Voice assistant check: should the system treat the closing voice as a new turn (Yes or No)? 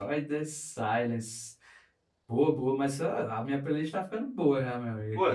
Yes